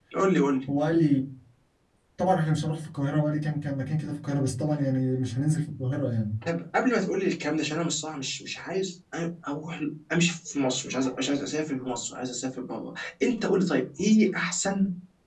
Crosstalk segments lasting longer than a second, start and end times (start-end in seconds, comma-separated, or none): none